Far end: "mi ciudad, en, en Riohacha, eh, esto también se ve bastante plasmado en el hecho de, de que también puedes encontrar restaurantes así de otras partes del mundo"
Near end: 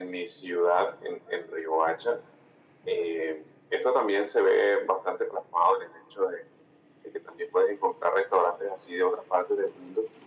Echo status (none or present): present